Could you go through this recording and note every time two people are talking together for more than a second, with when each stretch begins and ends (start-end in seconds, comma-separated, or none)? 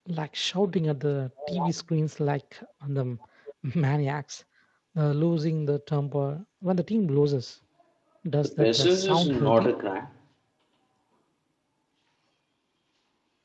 8.4-9.7